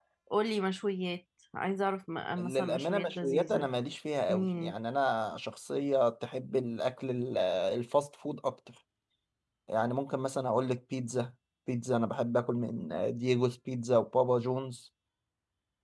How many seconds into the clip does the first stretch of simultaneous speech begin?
2.4 s

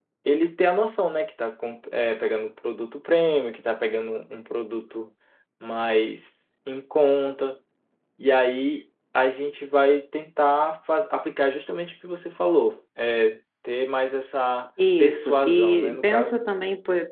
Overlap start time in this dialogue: 14.8 s

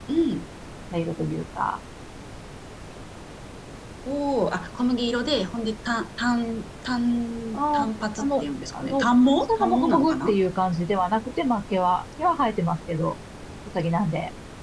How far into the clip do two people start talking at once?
7.5 s

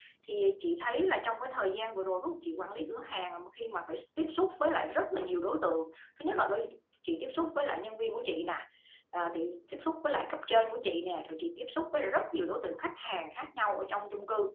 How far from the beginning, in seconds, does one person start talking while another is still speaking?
none

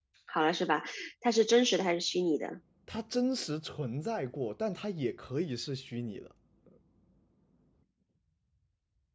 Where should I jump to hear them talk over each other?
none

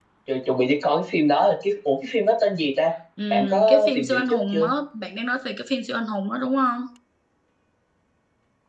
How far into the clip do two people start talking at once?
3.2 s

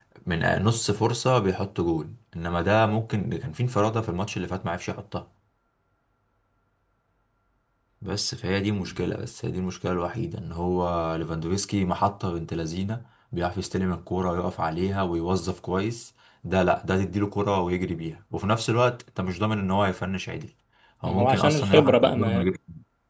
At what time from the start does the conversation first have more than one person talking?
21.1 s

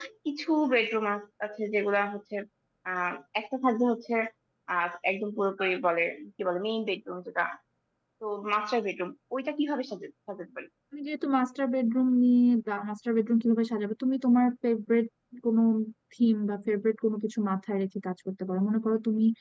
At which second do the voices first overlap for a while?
none

